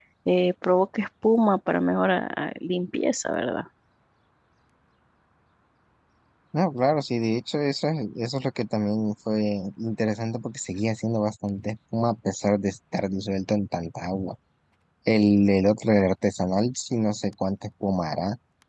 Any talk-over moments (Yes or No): No